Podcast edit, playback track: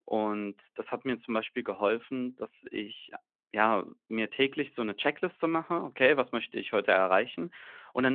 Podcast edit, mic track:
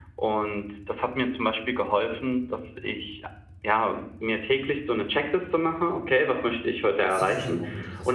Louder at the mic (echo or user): echo